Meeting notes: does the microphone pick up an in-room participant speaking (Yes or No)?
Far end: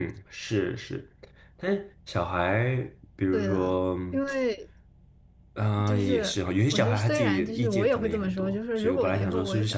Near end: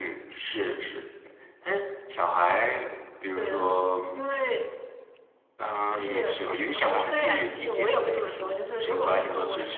No